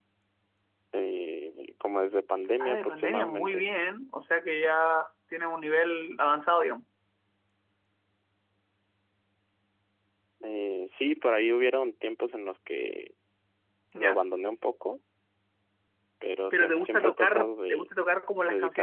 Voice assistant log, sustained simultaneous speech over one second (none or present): present